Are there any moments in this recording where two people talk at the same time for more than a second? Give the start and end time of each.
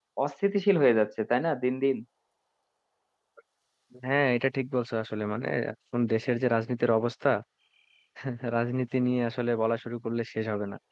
none

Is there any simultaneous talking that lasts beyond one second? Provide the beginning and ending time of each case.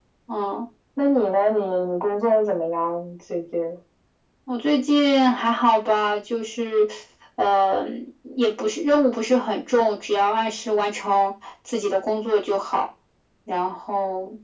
none

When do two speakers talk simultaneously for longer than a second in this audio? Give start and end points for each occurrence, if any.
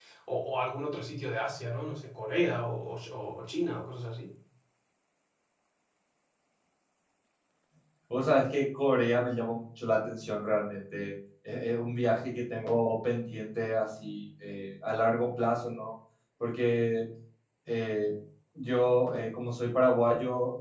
none

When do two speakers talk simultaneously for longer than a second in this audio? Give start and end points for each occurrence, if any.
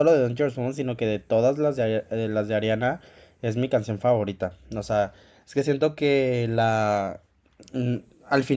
none

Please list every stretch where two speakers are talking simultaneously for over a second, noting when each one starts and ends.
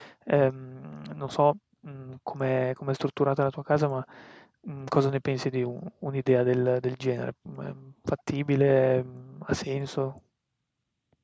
none

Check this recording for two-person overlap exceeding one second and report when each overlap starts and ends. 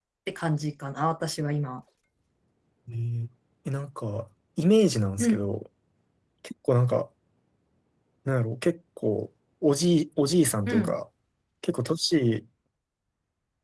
none

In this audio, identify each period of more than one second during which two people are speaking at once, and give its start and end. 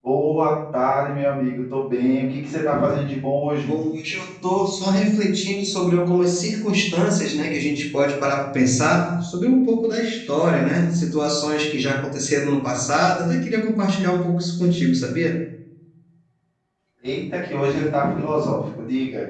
none

